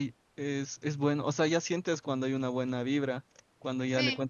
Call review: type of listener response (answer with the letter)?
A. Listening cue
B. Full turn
A